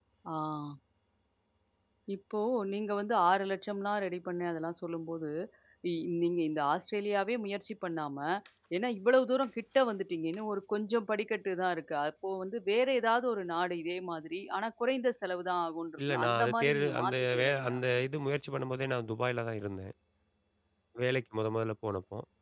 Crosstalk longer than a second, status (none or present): present